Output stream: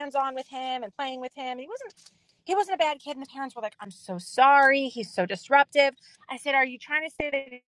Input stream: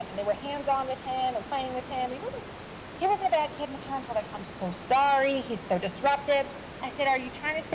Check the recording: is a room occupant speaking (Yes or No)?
No